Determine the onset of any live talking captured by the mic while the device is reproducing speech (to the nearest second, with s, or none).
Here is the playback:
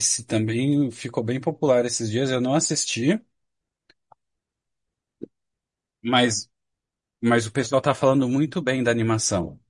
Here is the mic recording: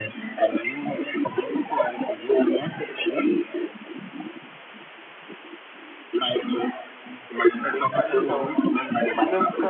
8 s